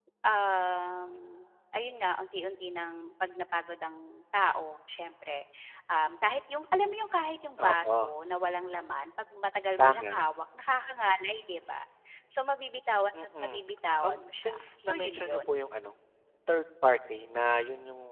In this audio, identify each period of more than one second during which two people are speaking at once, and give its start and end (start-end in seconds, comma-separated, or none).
14.0-15.6